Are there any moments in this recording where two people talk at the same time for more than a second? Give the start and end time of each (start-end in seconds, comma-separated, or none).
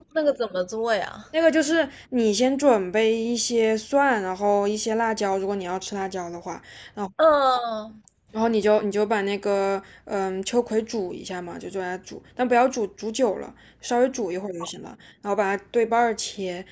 none